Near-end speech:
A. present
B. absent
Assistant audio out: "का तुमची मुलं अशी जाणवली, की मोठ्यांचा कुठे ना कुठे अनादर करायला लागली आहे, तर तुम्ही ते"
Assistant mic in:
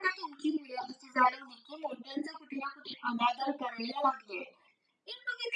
B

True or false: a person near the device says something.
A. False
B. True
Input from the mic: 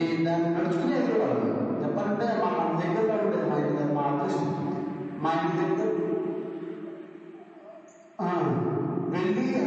A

